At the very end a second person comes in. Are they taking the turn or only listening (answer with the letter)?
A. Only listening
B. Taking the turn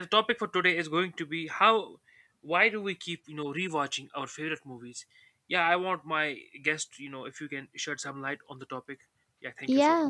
B